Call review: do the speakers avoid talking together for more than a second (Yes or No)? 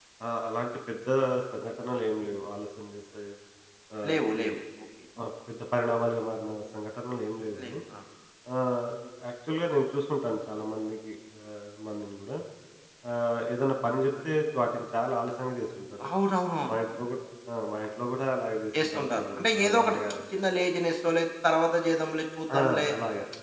No